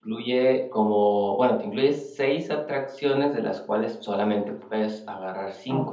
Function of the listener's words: taking over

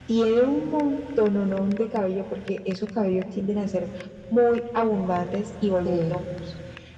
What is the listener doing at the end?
listening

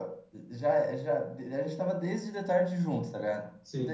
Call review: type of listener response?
listening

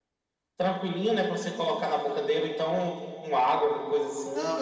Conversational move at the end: taking over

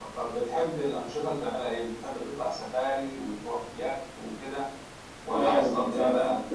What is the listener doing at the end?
taking over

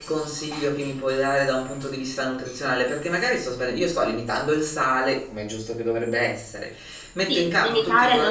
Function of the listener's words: taking over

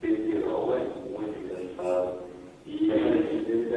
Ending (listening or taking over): taking over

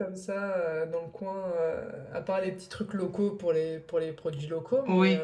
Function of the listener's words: taking over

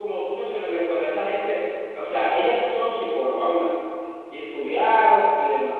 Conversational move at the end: listening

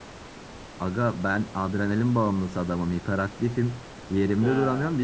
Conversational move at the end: listening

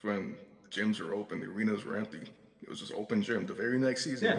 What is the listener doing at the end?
taking over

